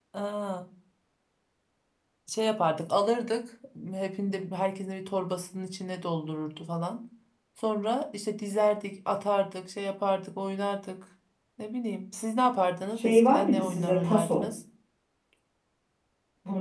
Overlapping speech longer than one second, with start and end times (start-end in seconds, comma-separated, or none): 13.0-14.4